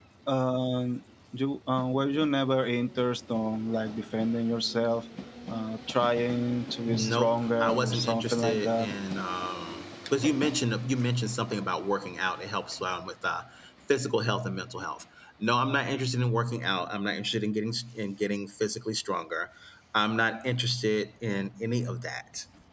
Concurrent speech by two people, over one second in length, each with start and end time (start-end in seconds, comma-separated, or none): 6.9-8.9